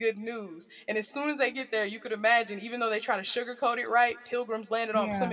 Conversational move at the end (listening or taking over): listening